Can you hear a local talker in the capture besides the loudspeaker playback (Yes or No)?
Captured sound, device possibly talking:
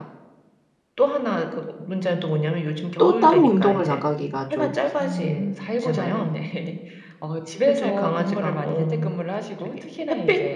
Yes